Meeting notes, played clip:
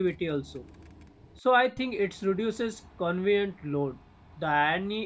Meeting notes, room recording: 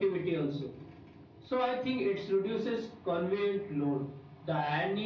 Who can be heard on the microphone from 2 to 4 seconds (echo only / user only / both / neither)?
echo only